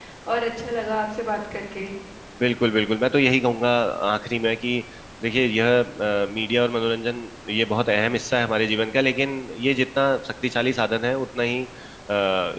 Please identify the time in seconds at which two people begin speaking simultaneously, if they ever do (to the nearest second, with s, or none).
none